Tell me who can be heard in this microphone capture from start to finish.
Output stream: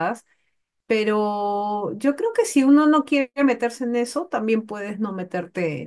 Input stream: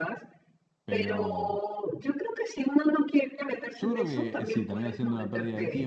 both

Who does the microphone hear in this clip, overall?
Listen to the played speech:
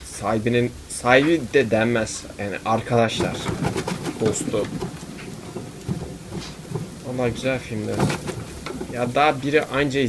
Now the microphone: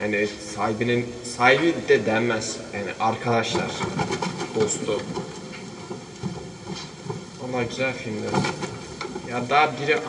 echo only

